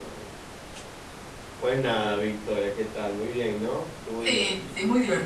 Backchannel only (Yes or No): No